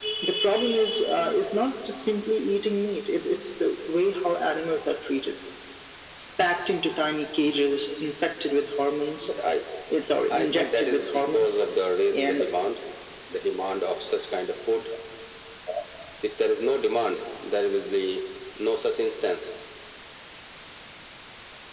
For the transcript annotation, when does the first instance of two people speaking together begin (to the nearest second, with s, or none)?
10 s